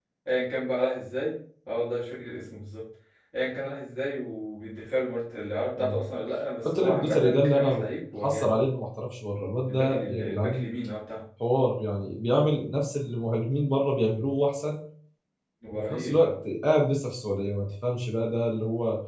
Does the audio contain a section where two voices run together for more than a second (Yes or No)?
Yes